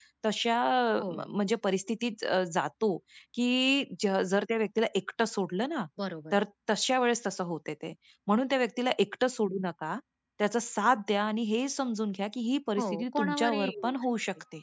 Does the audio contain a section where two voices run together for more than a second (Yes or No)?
Yes